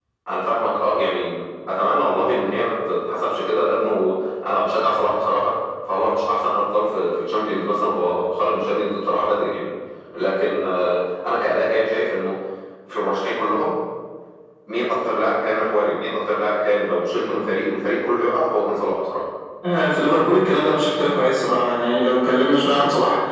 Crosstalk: none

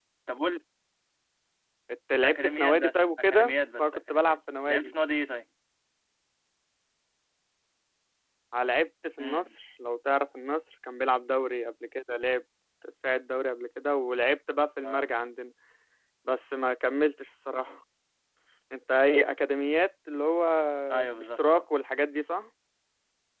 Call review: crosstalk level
present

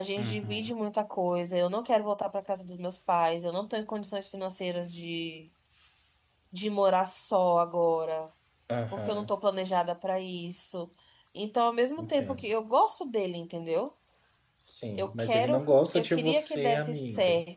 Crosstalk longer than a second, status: present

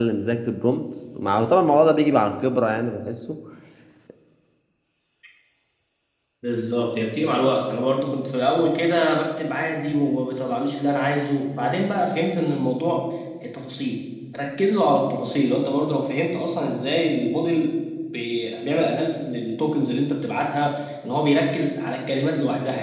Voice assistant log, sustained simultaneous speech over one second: none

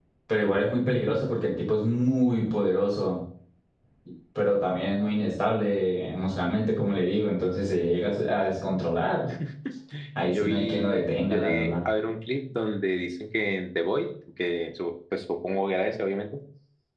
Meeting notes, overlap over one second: present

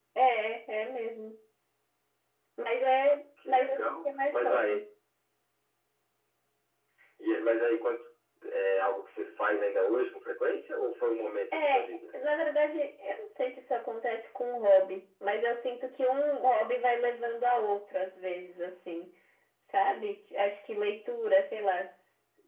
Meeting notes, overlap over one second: present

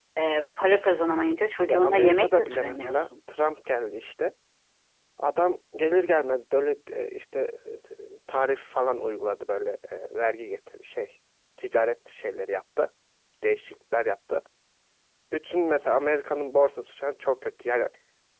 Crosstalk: present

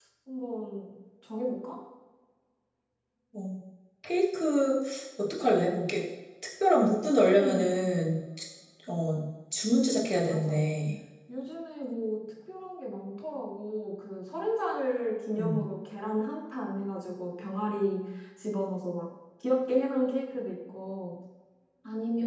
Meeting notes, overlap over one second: none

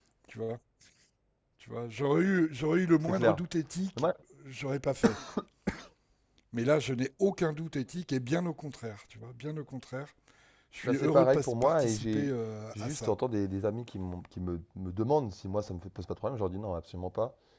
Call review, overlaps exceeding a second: present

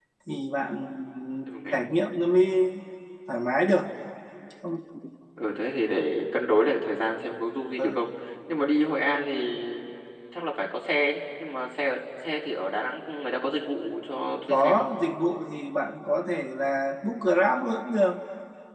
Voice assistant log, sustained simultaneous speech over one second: none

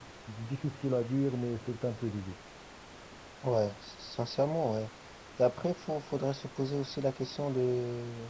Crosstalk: none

